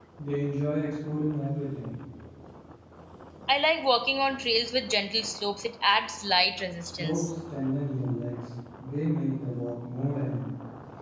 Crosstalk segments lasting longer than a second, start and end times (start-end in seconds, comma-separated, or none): none